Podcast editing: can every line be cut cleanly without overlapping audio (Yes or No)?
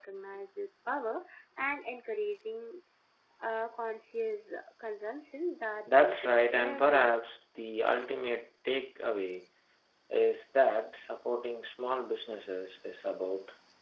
No